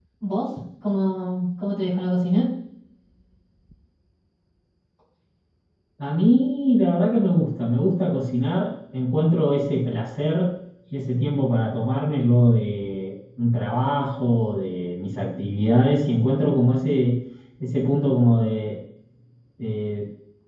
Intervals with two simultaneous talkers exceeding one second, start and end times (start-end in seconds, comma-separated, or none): none